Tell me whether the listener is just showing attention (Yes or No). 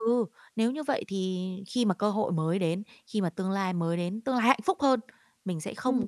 Yes